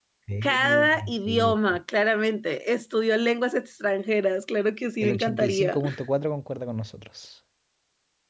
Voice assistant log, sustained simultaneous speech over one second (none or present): present